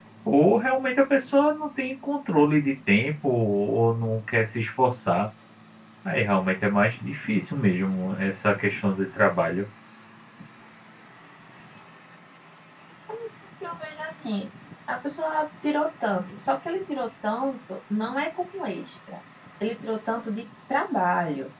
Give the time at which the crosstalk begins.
none

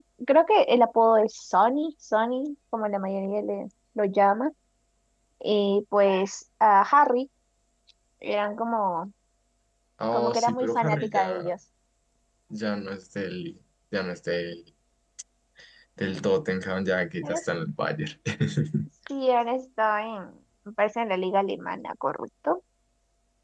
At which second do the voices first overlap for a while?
10 s

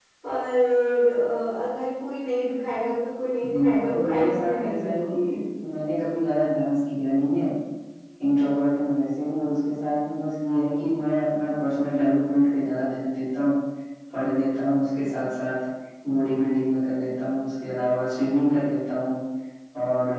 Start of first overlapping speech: 3 s

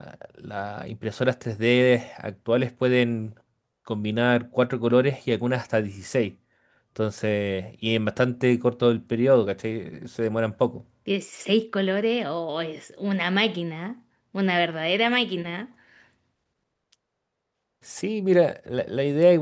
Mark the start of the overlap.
none

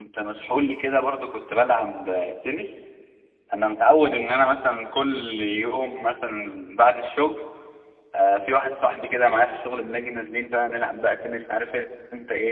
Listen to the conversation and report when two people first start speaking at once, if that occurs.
none

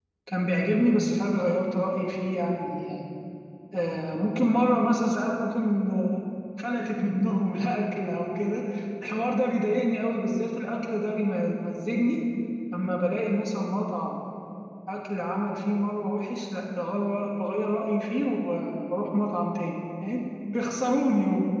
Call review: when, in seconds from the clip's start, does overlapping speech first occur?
none

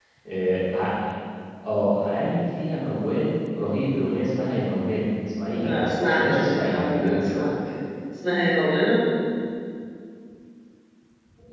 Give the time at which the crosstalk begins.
6 s

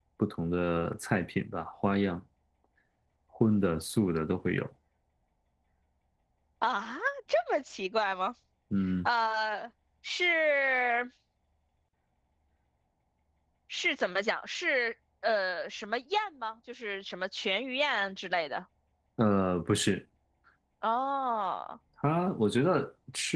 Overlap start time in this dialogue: none

